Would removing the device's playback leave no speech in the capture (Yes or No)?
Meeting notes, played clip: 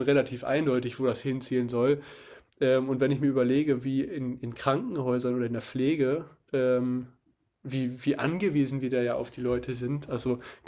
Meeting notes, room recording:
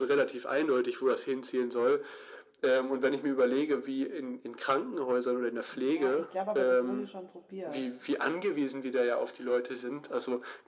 No